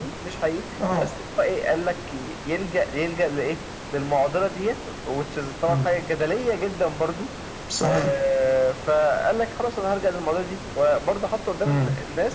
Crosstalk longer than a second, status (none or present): none